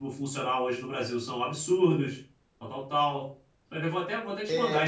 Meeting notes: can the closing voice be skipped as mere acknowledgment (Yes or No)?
No